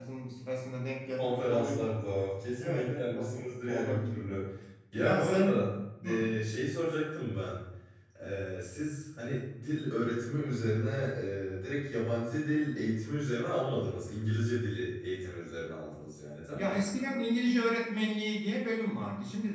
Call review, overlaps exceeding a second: present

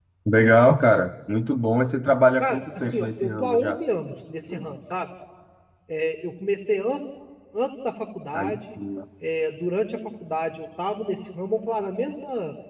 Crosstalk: present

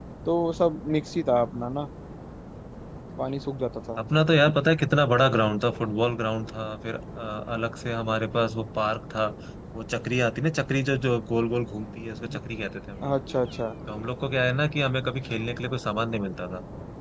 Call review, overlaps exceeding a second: none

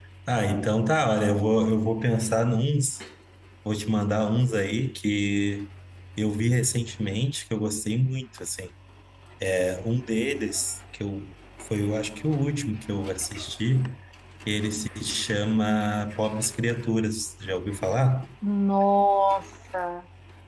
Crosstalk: none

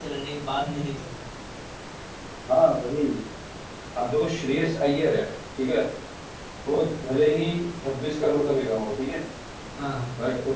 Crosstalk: none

